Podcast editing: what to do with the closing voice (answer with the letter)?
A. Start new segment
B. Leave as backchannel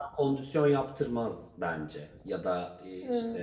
B